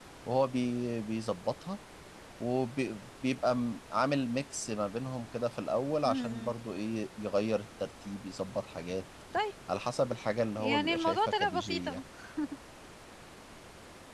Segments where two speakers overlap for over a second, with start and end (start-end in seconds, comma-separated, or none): 10.6-12.0